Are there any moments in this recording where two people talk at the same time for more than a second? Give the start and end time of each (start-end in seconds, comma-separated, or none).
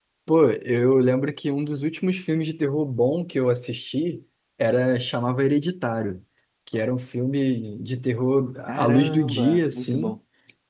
8.7-10.2